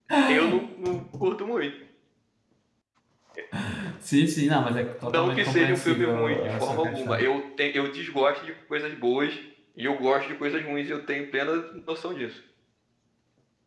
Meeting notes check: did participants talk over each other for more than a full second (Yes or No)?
Yes